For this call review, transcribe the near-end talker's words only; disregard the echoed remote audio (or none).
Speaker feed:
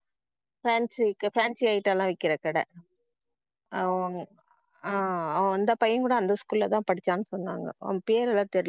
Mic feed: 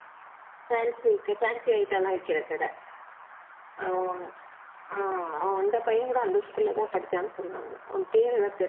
none